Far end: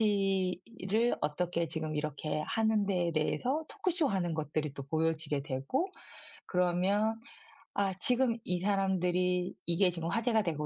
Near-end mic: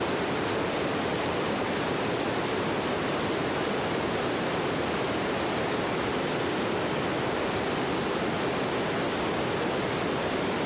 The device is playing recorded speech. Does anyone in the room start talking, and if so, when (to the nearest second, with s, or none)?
none